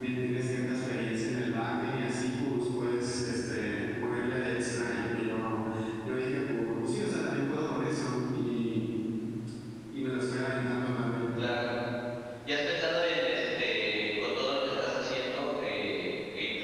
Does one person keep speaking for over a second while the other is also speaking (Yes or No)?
No